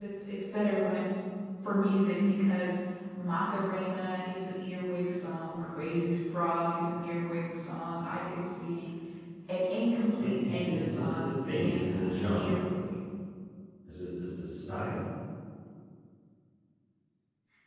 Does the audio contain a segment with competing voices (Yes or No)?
Yes